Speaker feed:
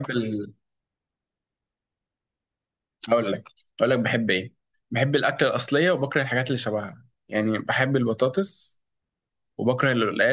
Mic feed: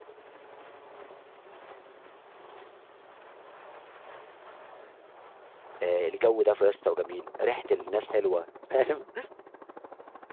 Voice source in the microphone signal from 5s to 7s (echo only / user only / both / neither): user only